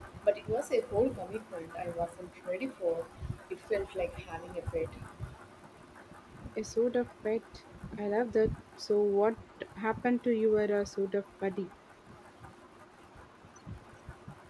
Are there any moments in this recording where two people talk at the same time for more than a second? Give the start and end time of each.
none

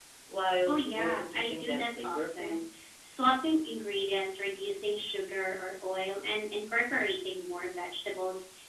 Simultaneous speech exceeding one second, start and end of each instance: 0.7-2.6

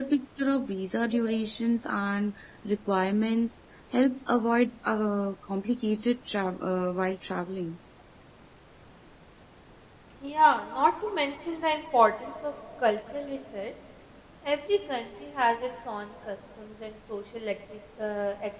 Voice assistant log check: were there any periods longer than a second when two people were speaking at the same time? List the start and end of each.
none

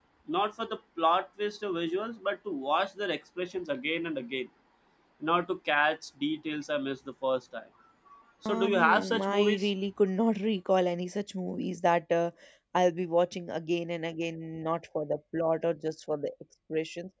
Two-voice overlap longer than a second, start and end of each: 8.4-9.7

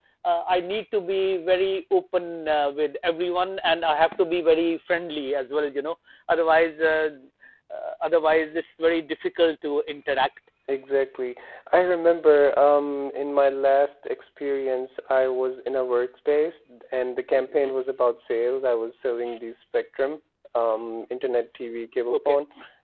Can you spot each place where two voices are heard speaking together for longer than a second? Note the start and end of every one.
none

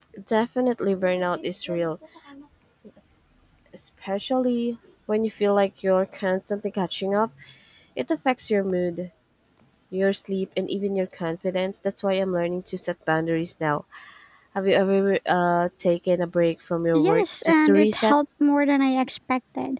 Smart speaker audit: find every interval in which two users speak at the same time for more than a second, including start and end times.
16.9-18.1

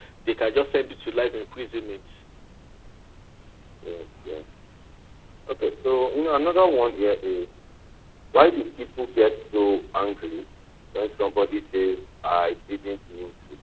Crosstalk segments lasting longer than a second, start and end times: none

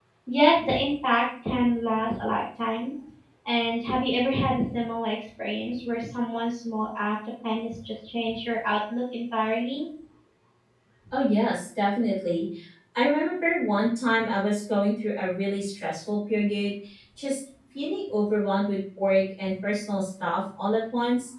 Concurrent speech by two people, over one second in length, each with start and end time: none

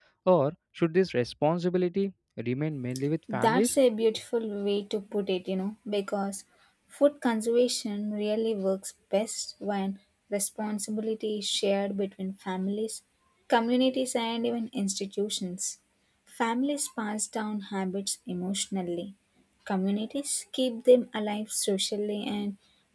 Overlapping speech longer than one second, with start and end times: none

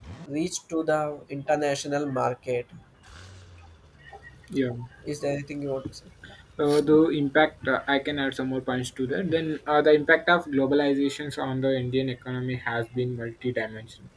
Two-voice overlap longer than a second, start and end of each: none

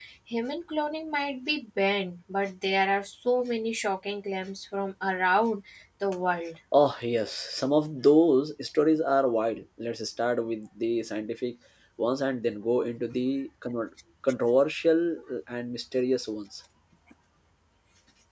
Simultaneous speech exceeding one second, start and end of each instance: none

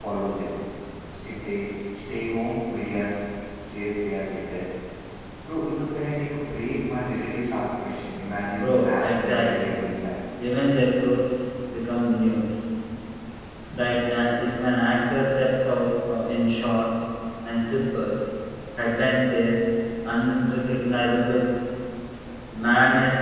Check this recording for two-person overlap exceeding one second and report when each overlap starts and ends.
8.5-9.8

